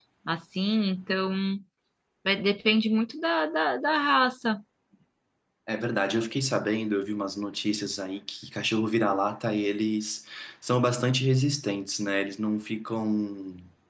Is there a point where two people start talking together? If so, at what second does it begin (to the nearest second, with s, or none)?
none